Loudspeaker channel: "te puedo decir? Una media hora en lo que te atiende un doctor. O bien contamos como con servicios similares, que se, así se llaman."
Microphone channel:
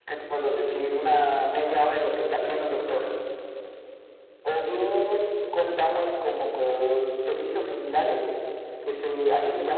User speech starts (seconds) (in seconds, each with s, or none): none